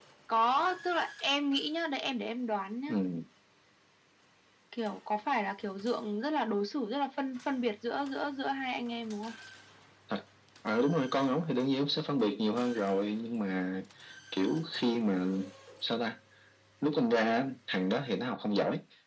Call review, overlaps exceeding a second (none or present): none